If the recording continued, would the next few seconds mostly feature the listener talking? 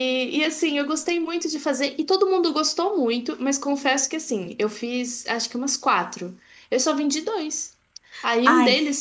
No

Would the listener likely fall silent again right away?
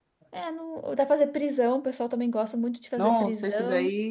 No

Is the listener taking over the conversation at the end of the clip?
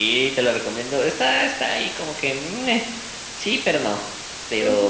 No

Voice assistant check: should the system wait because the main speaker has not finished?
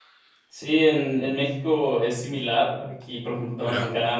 Yes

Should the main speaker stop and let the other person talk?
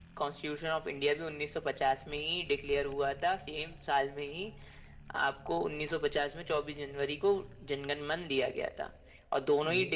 No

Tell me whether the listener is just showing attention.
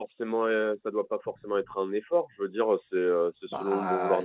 Yes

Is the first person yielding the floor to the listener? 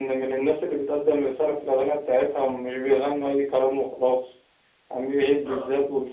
No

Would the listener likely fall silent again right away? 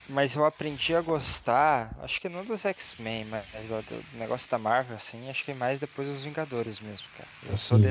Yes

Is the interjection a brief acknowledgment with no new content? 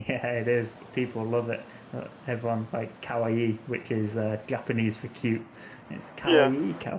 Yes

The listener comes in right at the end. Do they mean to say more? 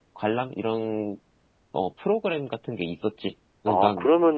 Yes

